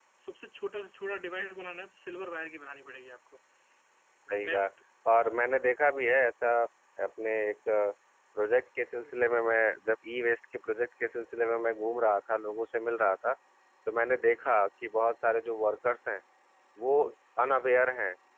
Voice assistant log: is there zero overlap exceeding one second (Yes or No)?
Yes